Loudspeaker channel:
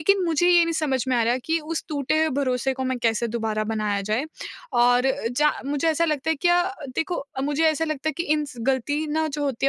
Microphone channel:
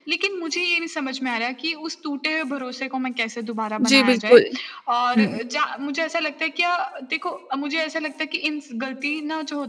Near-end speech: present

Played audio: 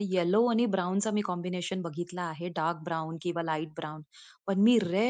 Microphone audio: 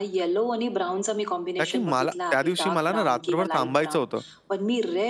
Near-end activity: present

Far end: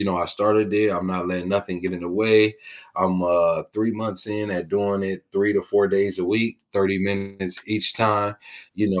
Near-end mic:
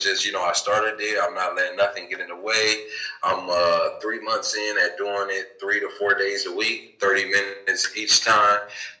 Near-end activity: none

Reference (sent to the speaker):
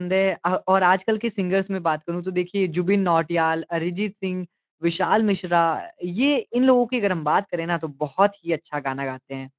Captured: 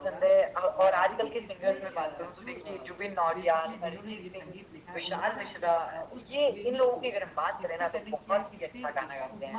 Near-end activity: present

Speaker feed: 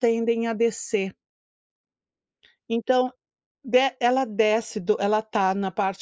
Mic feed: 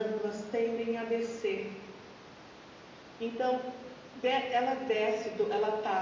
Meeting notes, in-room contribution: none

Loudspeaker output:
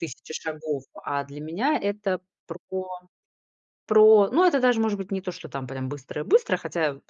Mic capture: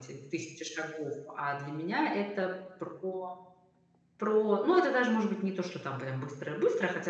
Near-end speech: none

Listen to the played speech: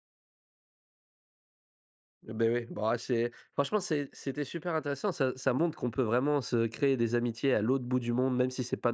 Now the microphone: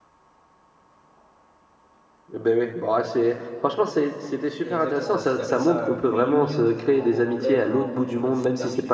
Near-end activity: present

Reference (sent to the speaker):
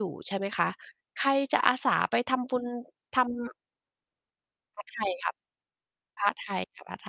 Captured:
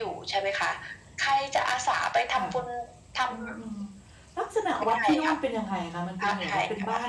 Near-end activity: present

